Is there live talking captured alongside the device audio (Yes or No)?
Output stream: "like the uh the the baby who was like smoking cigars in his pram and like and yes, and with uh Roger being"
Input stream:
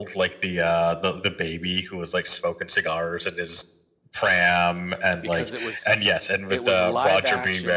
Yes